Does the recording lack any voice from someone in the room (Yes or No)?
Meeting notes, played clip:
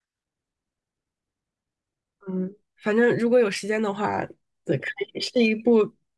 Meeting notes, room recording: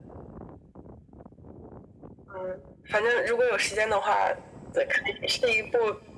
Yes